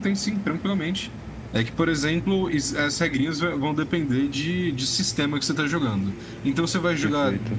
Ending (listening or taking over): listening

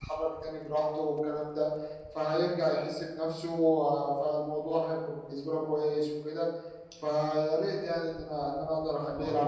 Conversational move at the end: taking over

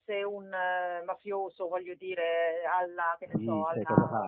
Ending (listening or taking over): taking over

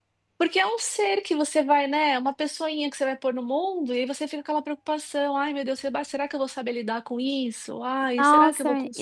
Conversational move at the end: taking over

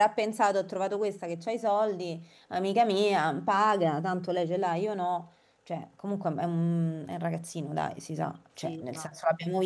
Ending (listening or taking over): listening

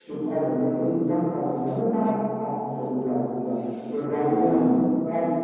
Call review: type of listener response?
listening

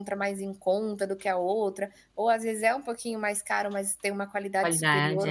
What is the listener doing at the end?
listening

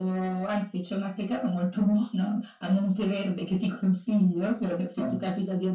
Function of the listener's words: listening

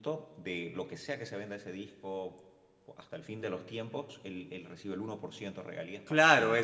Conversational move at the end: taking over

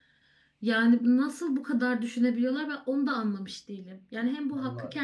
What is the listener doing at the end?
listening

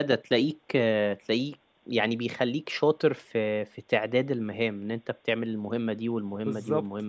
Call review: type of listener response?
taking over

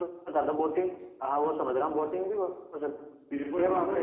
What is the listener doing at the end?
taking over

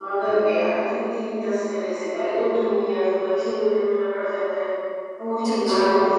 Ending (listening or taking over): listening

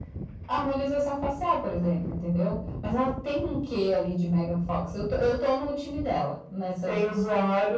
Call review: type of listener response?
taking over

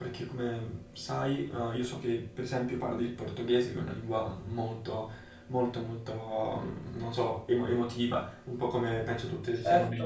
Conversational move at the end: taking over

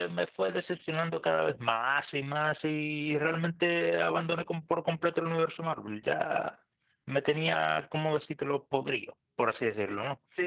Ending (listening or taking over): taking over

